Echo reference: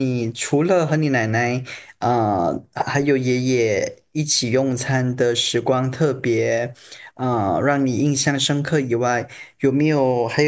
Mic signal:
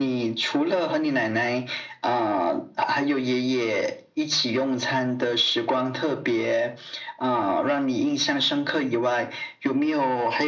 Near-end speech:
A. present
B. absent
B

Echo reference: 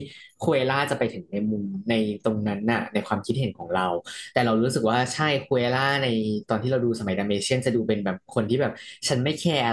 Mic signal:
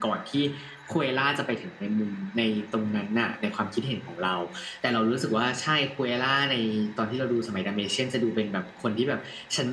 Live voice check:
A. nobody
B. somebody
A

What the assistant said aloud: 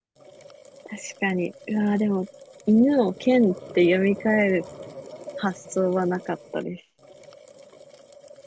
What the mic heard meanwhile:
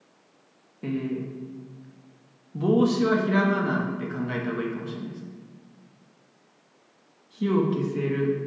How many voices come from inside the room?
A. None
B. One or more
B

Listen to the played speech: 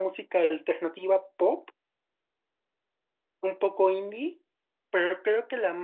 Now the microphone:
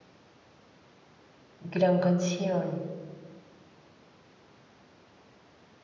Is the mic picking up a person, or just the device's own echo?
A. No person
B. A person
B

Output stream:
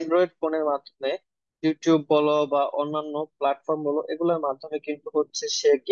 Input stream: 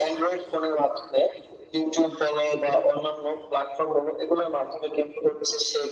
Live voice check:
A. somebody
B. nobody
B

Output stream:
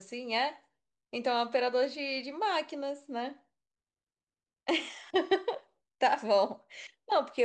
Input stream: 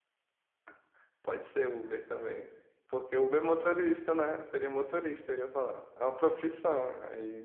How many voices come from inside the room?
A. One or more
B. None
A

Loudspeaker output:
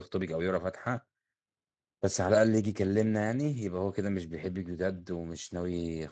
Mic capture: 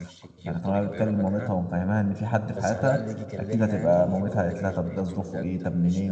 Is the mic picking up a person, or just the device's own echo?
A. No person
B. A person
B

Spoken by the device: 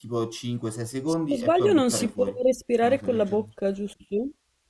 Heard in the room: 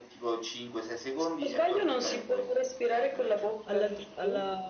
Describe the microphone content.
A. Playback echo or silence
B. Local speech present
B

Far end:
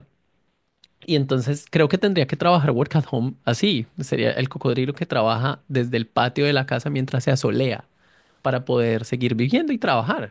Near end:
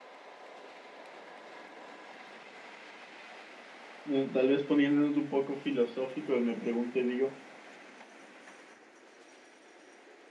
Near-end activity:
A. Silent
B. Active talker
B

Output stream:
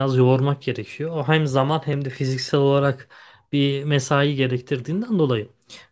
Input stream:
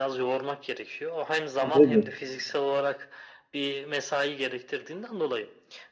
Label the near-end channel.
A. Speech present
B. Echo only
A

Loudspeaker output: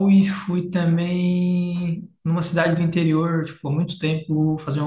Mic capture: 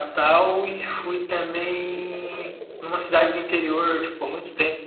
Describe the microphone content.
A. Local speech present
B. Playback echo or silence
B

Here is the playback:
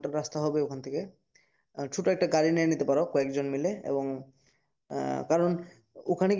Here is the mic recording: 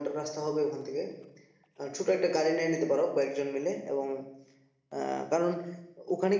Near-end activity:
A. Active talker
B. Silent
B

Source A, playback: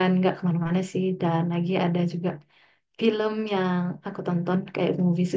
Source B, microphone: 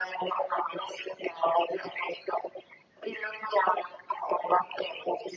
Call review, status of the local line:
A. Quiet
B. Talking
A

